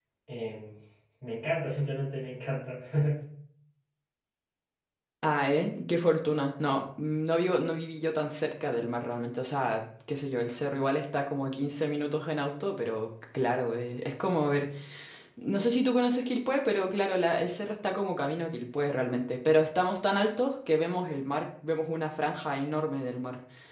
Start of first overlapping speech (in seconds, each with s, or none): none